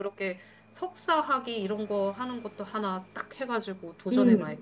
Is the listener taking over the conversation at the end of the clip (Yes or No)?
Yes